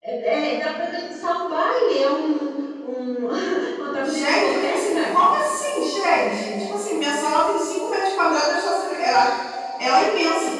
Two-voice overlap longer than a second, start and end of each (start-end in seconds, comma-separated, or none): 4.0-5.3